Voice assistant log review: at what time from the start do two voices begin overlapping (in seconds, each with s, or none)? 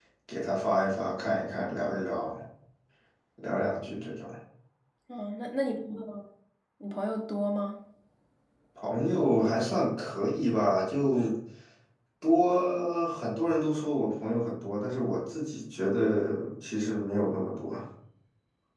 none